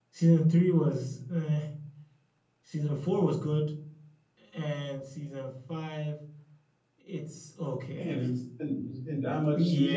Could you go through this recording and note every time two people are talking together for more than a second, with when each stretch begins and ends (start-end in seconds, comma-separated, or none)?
none